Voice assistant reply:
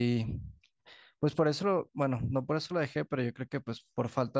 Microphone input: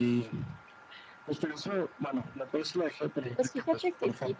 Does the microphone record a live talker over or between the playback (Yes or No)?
Yes